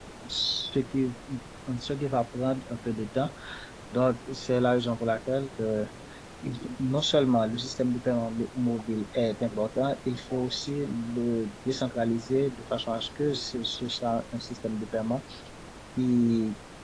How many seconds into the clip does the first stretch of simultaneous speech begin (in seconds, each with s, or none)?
none